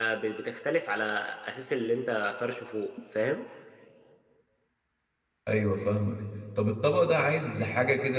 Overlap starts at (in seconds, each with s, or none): none